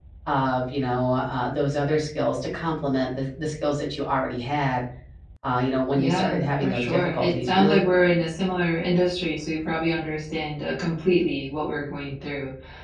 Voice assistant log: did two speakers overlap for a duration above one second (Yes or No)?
Yes